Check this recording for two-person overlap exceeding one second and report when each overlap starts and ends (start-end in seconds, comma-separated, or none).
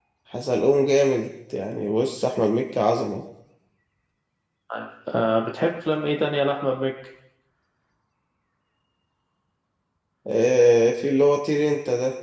none